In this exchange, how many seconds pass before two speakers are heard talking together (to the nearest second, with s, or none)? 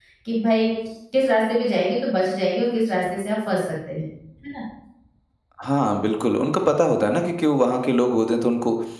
none